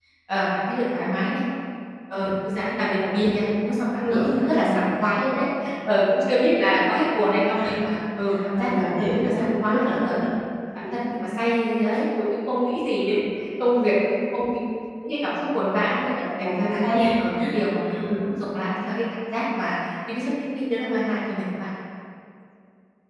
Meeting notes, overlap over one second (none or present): present